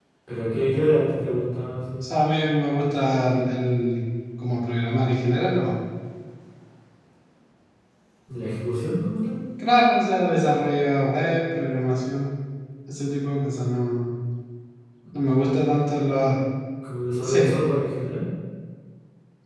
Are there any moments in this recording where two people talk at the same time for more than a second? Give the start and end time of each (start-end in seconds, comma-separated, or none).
none